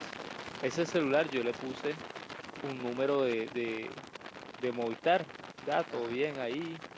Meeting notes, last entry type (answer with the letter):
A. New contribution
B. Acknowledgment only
B